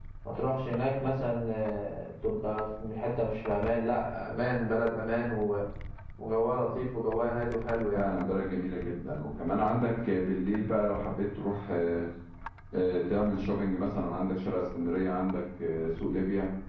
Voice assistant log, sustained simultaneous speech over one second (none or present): none